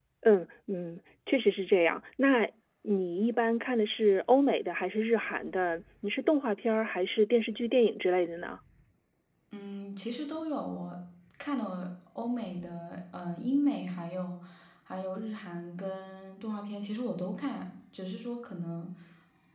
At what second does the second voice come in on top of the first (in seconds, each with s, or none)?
none